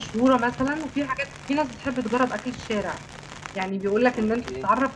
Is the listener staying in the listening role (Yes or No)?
Yes